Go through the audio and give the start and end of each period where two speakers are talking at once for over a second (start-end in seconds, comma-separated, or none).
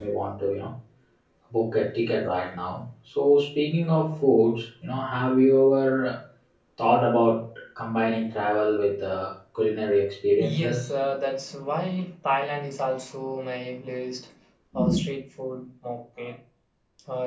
none